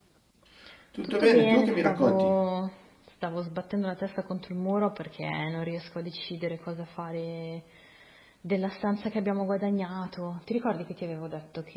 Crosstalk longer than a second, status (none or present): present